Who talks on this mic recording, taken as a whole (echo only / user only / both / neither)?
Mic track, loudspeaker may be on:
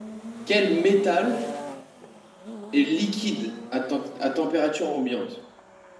echo only